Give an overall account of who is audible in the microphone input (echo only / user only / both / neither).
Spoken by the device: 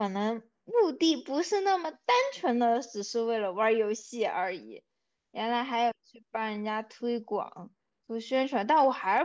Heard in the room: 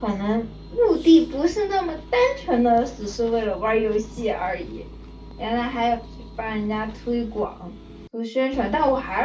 echo only